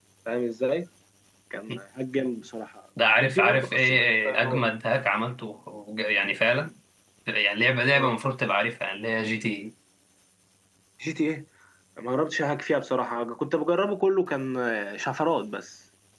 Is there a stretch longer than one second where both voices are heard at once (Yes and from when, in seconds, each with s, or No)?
Yes, from 3.2 s